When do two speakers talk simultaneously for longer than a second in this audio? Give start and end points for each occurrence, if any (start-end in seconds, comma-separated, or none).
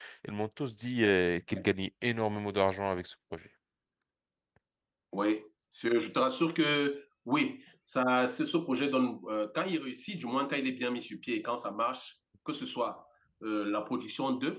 none